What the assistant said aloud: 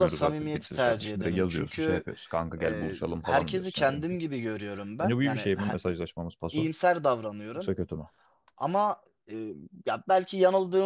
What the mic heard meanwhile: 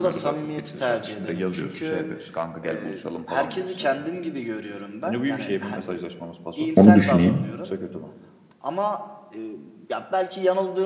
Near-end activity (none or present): present